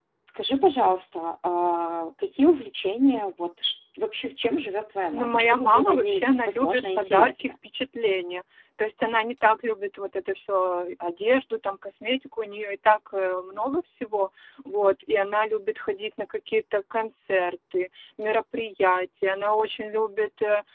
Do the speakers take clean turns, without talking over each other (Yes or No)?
No